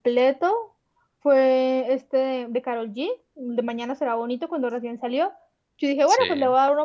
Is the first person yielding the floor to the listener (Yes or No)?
No